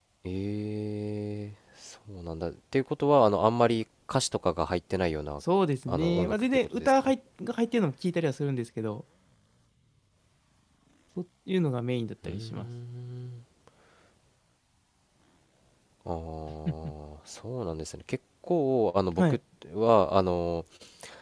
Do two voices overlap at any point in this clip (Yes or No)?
Yes